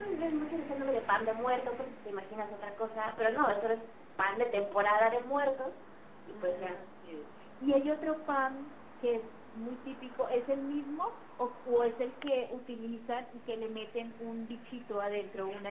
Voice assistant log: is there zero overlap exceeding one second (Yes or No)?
Yes